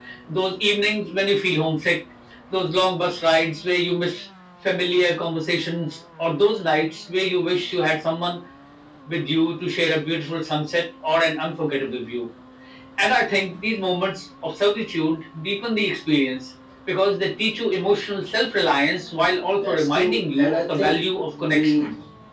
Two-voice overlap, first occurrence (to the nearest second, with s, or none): 20 s